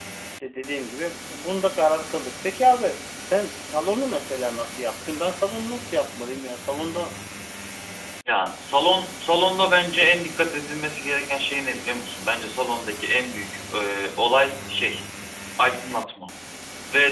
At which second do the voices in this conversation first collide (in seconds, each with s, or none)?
none